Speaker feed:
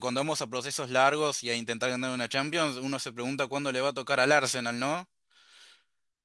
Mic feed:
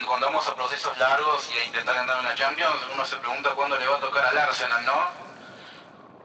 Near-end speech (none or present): none